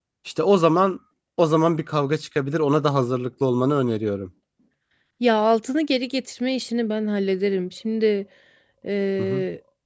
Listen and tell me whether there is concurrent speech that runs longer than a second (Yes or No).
No